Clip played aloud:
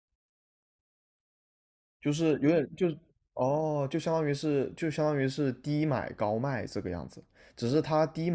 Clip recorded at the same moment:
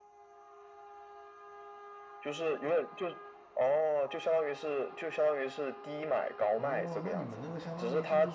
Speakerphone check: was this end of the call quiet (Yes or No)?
No